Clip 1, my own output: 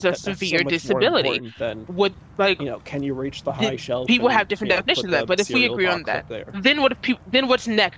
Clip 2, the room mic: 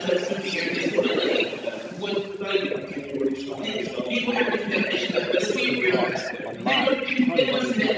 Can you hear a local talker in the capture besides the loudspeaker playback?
Yes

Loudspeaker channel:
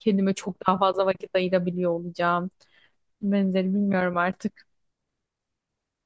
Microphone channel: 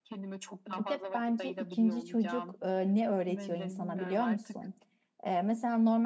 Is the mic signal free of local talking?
No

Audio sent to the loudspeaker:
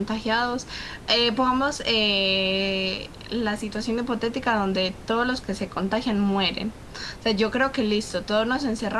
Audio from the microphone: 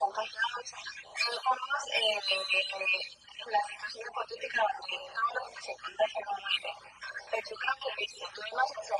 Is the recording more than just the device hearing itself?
No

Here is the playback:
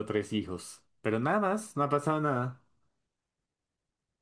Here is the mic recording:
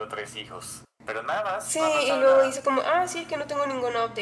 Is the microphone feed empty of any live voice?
No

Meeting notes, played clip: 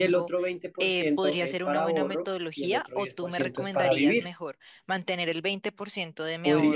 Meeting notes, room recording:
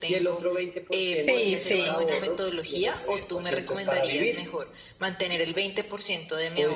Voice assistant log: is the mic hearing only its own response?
No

